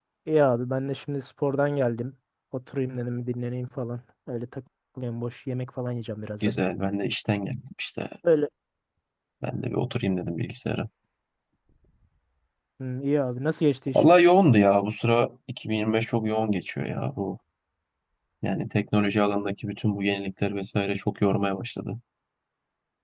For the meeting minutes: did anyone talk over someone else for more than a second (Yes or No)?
No